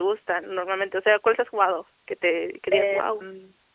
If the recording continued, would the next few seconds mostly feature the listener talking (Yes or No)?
Yes